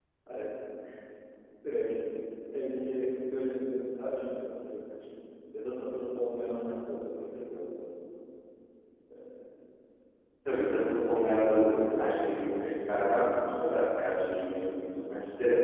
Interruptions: none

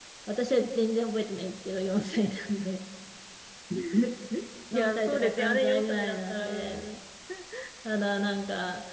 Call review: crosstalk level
present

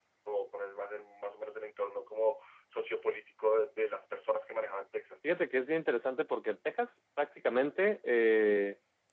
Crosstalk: none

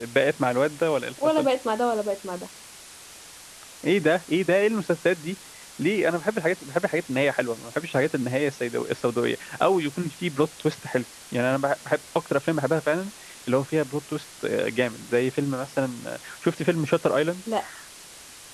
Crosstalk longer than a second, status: none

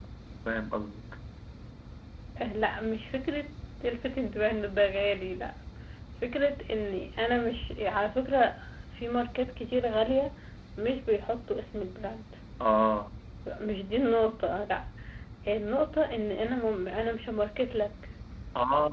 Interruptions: none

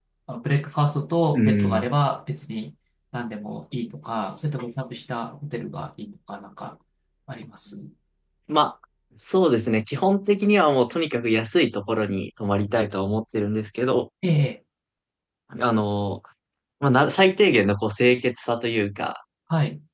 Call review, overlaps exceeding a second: none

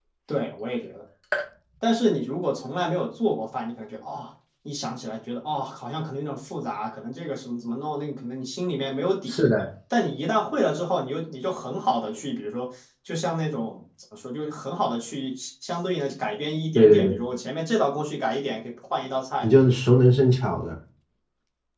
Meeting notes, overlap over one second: none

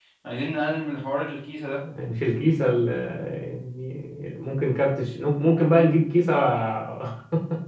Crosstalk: none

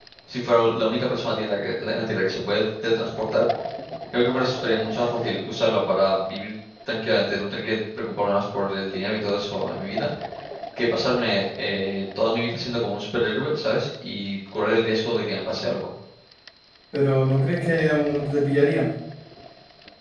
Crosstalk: none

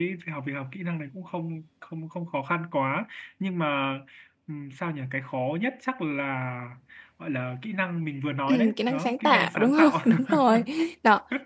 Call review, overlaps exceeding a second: present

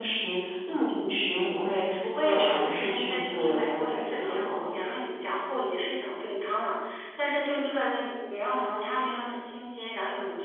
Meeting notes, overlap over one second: present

